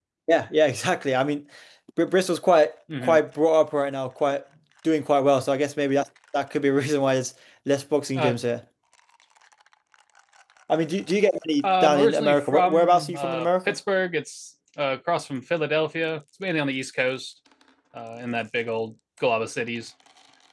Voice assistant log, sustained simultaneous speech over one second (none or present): present